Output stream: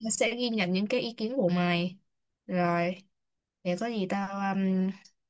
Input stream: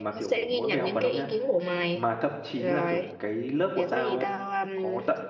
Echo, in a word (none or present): present